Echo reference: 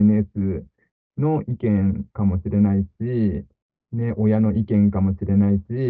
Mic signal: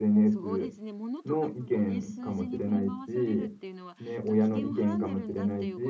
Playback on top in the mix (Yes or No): Yes